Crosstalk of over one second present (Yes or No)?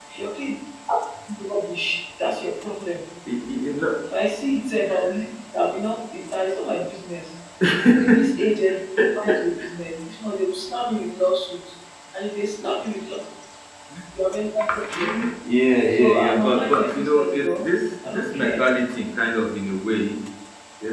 Yes